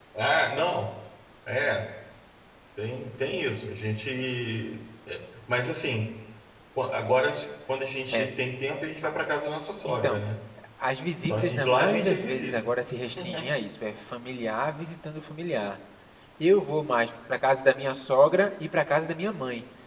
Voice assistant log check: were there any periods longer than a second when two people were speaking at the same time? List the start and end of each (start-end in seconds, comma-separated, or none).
11.3-12.7